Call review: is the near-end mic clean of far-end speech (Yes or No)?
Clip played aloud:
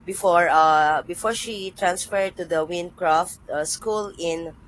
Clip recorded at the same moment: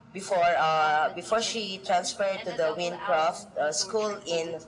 No